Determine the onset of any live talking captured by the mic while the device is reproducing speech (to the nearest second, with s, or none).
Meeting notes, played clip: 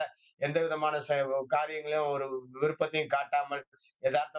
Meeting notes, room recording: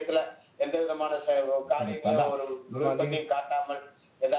2 s